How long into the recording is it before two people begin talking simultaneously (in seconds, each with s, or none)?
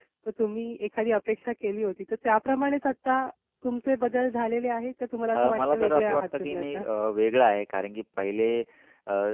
5.3 s